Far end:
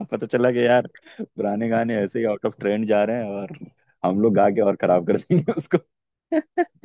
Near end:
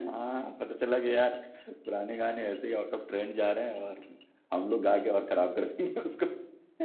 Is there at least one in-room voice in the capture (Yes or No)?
No